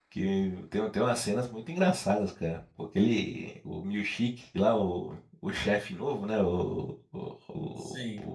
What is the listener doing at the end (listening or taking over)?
listening